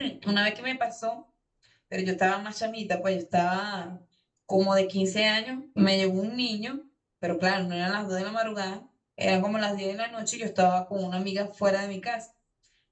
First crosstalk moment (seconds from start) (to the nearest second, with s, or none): none